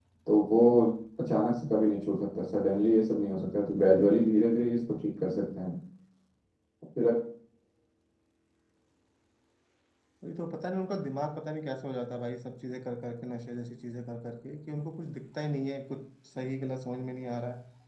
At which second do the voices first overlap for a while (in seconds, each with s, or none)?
none